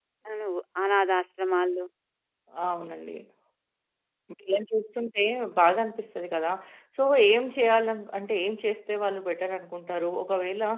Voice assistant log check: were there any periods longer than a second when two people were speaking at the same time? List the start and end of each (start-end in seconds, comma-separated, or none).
none